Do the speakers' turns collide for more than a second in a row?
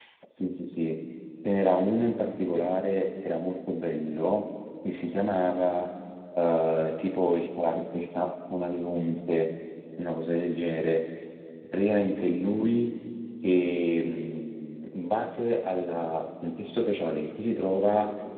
No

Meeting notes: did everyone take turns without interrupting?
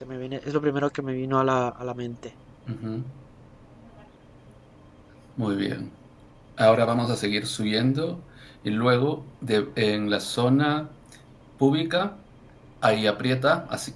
Yes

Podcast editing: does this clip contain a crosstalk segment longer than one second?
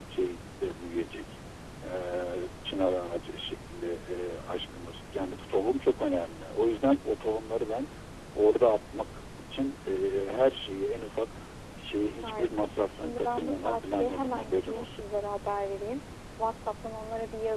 Yes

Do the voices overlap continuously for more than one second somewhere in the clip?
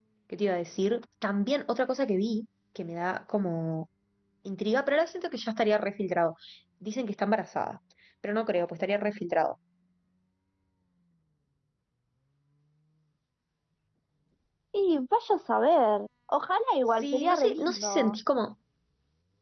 Yes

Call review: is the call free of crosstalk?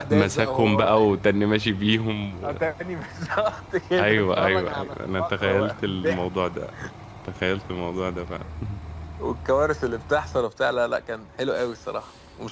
No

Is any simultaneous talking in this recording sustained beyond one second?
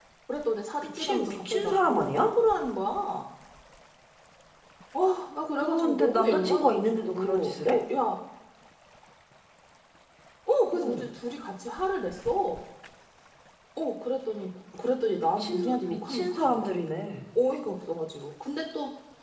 Yes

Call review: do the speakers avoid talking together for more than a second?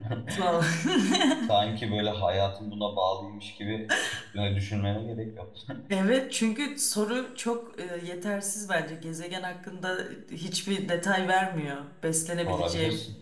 Yes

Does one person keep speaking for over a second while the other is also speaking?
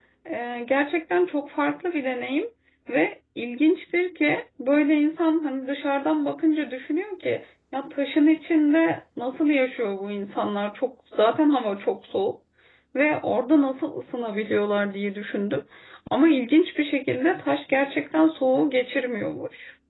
No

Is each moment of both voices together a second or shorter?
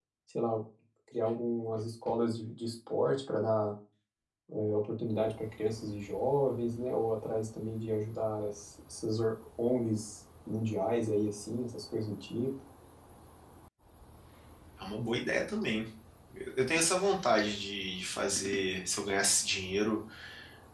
Yes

